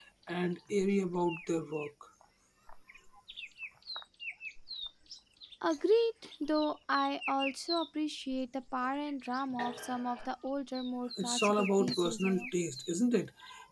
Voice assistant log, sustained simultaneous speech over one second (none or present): present